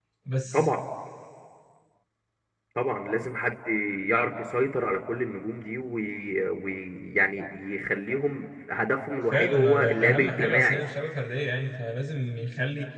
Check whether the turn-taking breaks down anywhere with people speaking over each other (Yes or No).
Yes